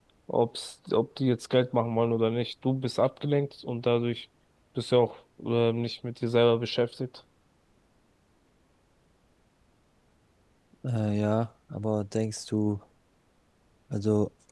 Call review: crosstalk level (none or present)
none